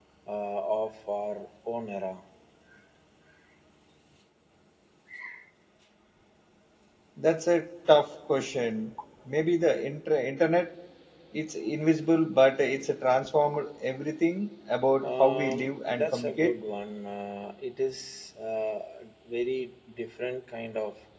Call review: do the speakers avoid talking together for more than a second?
No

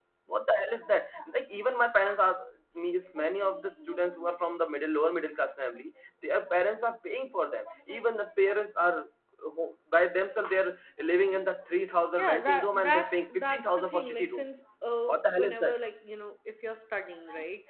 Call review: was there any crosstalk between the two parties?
Yes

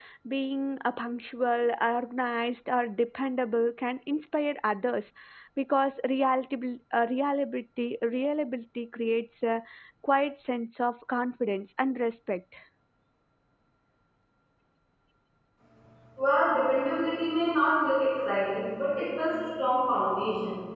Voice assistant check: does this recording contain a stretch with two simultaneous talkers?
No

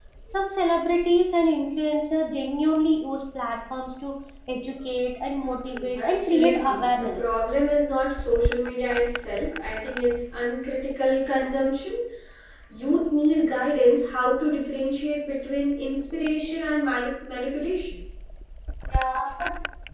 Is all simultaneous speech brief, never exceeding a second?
No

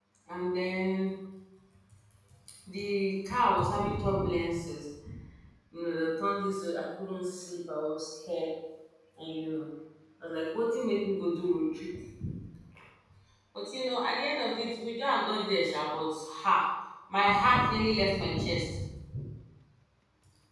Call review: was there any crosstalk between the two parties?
No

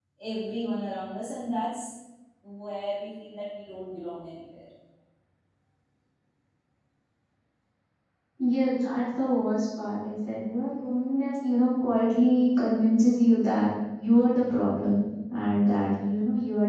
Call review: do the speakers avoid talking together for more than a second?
Yes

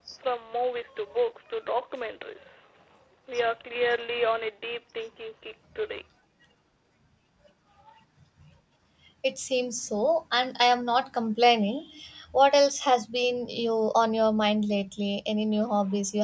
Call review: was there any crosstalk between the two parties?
No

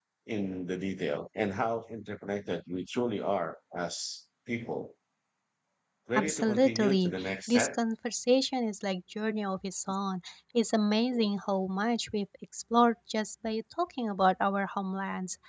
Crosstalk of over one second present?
Yes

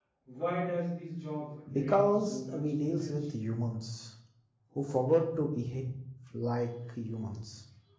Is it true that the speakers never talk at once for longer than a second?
No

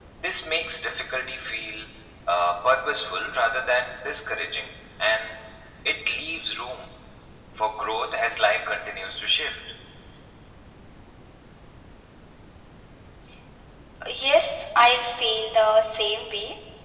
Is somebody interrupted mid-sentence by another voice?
No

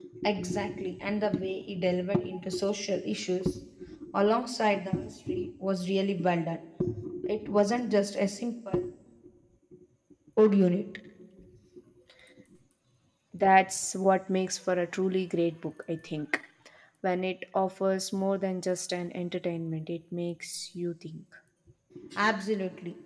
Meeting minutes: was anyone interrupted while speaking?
No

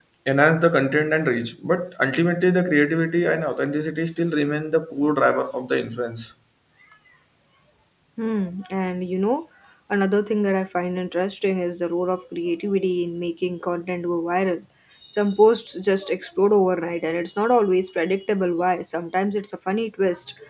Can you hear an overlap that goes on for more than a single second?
No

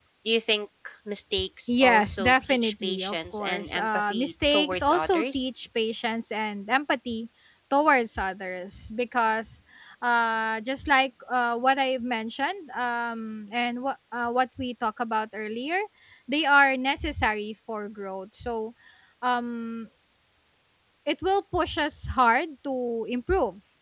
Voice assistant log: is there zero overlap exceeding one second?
No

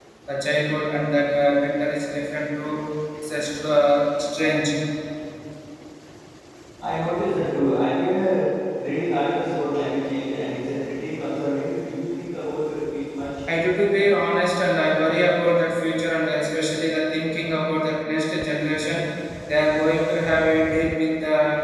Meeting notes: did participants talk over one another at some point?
No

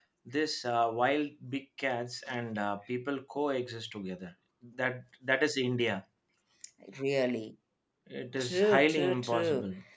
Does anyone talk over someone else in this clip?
Yes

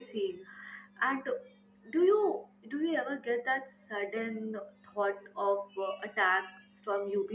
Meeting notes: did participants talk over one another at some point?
No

